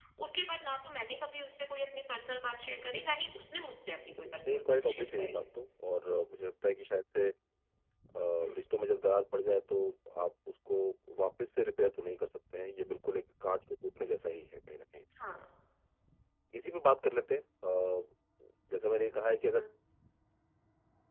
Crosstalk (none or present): present